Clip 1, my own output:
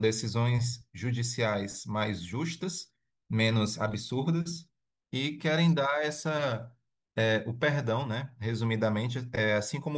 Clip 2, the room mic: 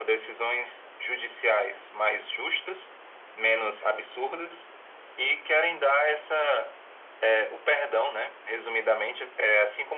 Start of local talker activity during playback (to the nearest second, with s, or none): none